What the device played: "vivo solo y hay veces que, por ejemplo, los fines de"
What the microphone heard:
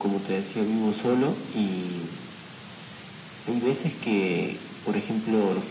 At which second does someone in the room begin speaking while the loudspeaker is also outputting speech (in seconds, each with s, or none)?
none